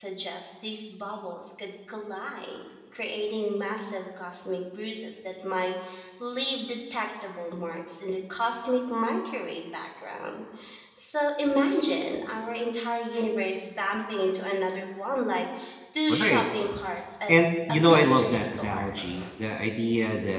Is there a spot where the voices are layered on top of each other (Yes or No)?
Yes